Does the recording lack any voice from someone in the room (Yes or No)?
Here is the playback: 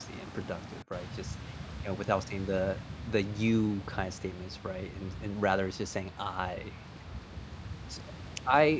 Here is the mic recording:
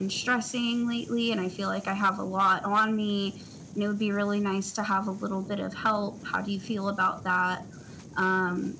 No